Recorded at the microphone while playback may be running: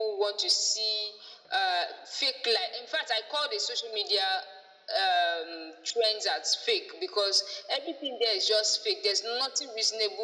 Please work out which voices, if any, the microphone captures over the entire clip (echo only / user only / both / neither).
echo only